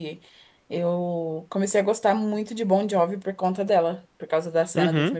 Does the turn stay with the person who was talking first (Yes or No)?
No